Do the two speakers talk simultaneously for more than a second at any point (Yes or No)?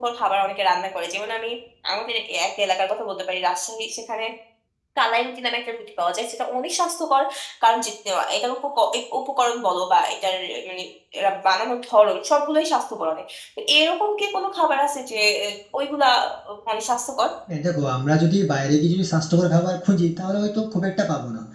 No